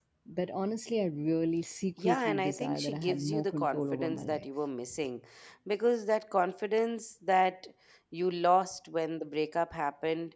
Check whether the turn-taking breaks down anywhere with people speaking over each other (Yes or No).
Yes